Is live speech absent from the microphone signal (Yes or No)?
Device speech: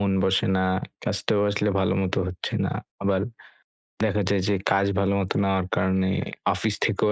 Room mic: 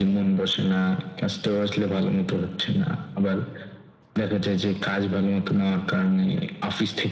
Yes